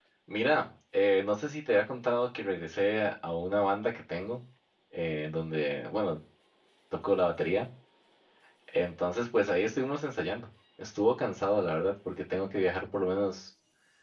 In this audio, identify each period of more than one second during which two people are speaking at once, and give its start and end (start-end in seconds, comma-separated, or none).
none